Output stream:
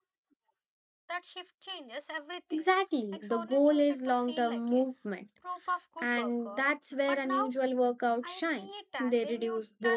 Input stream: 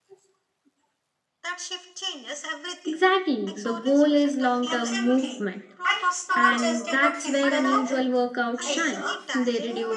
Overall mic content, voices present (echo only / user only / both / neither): both